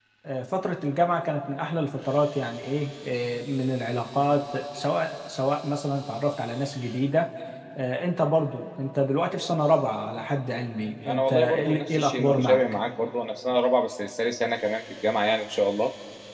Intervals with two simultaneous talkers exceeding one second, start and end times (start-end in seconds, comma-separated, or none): 11.1-12.6